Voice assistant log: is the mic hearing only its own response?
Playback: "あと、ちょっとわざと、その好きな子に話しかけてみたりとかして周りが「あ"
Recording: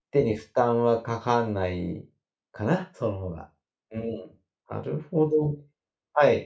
No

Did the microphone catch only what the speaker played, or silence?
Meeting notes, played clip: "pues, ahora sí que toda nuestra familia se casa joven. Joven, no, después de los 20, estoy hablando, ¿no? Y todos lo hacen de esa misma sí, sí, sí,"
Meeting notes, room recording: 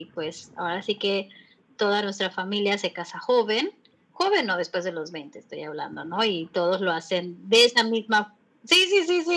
Yes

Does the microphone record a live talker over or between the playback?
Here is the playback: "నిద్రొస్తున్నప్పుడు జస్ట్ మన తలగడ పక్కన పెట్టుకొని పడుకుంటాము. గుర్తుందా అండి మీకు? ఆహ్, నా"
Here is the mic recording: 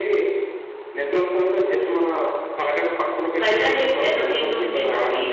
Yes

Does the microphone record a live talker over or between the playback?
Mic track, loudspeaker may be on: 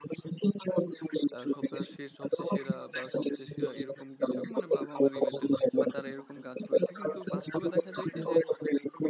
Yes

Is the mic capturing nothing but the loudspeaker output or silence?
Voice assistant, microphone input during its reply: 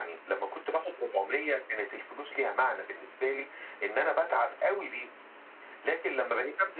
Yes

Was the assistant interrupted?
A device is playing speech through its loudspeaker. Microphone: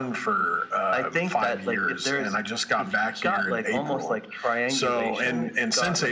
No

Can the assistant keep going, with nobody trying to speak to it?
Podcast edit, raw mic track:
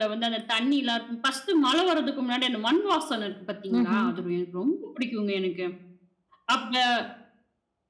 No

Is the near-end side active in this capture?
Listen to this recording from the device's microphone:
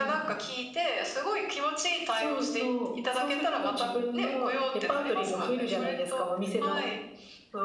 No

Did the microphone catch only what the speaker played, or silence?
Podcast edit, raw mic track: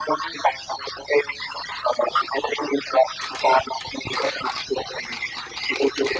Yes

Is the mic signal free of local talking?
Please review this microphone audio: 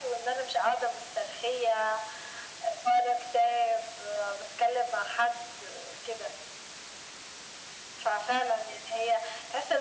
Yes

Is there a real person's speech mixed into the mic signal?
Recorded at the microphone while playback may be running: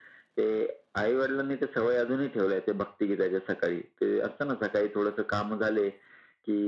No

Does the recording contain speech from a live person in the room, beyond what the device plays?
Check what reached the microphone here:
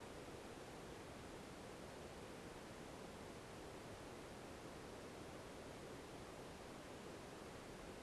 No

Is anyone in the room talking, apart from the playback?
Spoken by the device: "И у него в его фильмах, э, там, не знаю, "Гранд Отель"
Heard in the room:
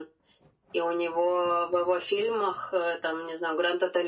No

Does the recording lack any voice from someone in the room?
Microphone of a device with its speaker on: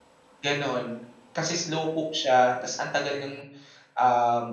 No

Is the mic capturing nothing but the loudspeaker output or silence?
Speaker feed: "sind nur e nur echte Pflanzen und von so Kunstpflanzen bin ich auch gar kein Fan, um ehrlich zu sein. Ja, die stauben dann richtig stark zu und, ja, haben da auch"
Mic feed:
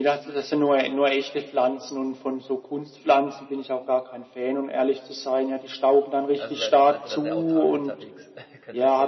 No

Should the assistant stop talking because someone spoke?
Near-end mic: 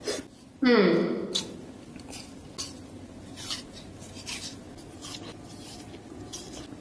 Yes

